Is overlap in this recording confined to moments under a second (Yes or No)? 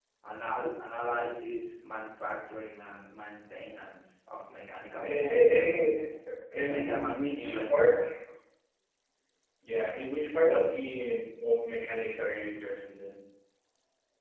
No